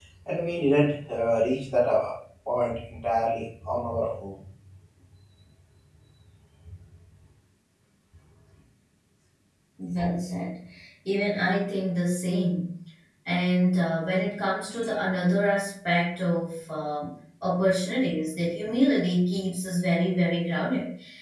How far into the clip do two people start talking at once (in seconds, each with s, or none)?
none